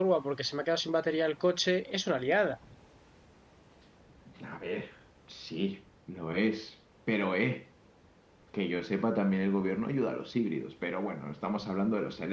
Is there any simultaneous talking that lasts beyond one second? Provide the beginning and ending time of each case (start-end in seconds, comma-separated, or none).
none